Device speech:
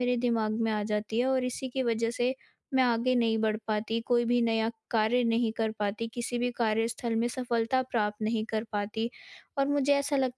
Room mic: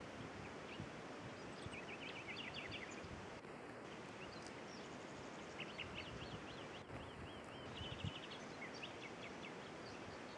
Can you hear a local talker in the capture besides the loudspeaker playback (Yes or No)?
No